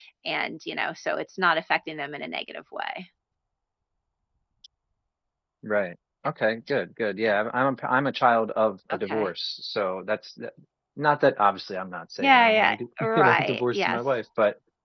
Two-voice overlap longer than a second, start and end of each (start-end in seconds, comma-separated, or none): 12.2-14.2